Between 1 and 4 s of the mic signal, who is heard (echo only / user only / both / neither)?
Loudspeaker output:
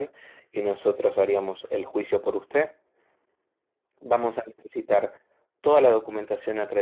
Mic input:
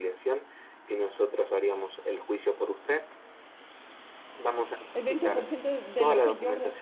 echo only